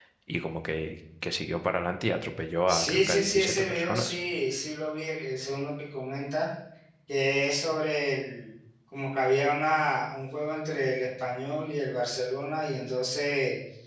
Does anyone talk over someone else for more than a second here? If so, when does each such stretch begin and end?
2.7-4.2

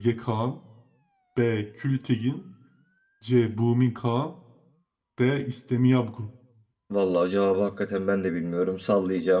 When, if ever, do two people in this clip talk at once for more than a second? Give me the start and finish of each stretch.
none

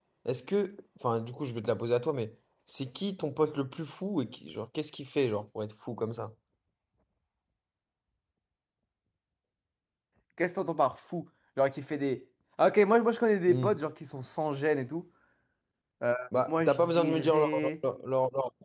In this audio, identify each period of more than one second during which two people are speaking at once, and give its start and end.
16.4-17.7

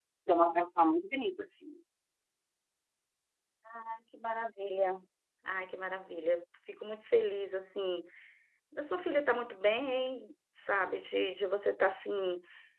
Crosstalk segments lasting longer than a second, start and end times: none

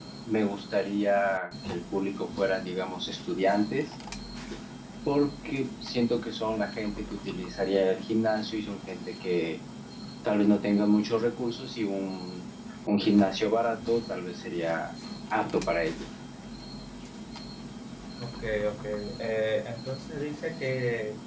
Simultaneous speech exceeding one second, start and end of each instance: none

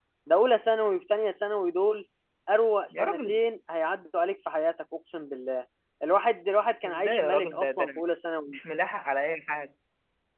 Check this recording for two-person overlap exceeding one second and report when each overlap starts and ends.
6.9-8.1

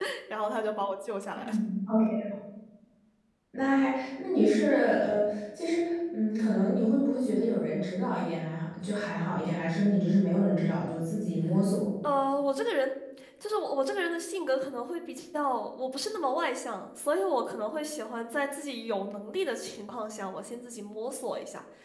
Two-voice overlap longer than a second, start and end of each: none

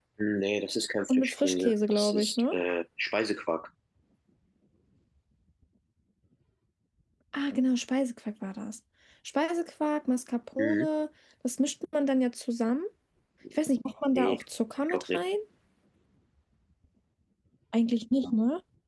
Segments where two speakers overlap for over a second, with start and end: 1.1-2.6

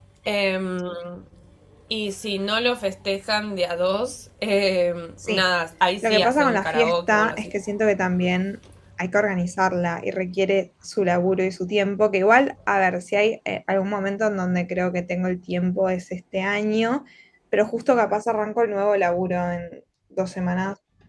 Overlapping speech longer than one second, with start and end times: 6.0-7.5

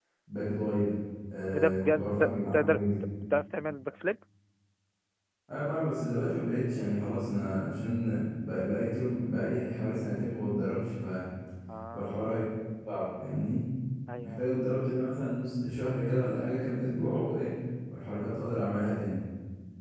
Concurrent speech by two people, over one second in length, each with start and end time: 1.5-2.8

